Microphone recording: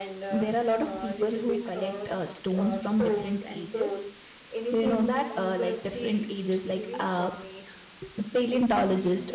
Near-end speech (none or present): present